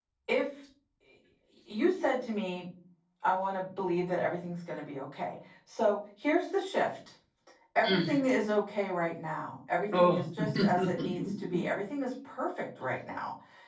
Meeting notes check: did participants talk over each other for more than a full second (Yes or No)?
Yes